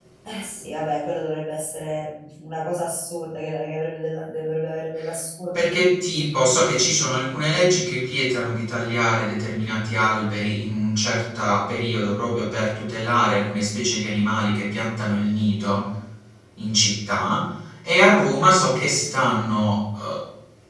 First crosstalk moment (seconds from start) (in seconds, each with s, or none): none